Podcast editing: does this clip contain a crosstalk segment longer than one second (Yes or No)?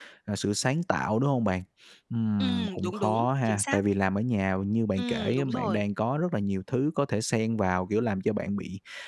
Yes